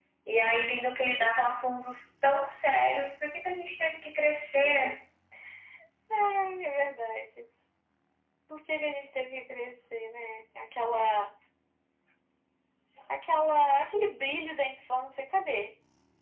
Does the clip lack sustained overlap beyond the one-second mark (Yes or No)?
Yes